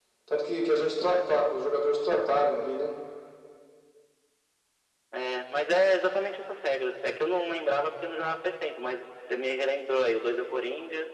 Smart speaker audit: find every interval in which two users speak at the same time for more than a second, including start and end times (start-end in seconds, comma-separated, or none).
none